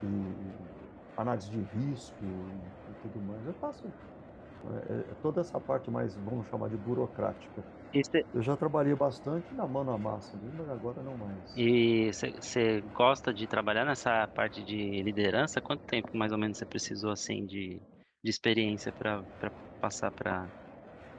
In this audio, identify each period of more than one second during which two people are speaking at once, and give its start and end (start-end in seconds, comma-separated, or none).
none